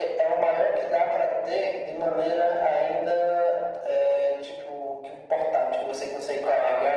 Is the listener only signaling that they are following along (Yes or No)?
Yes